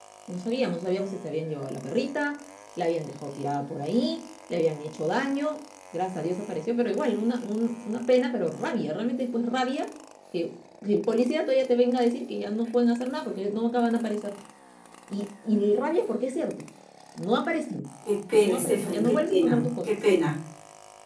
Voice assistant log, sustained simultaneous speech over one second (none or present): present